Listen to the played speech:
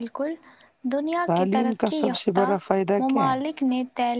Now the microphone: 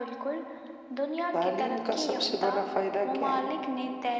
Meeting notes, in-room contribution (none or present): none